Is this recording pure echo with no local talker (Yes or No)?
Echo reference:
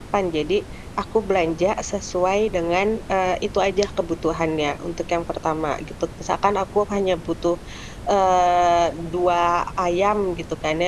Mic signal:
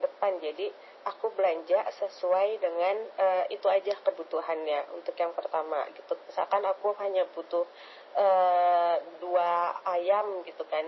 Yes